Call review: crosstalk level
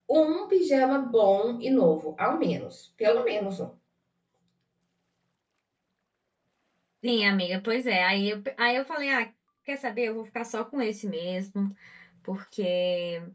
none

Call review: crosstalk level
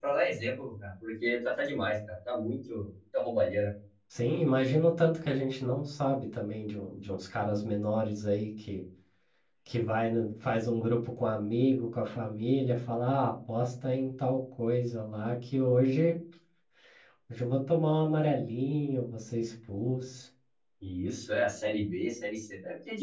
none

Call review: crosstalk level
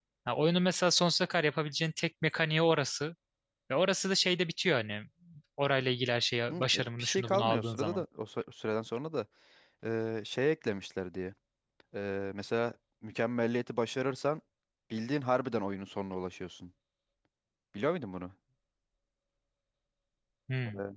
present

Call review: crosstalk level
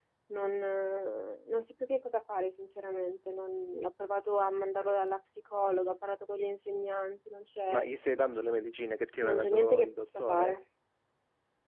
present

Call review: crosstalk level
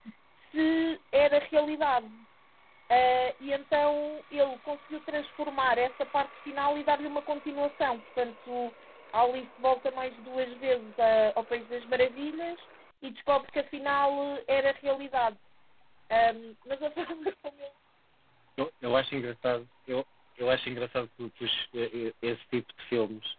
none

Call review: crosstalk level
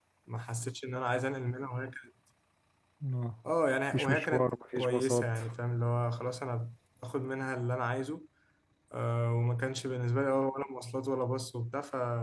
present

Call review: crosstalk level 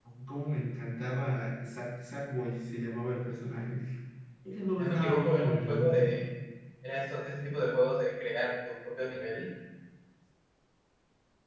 present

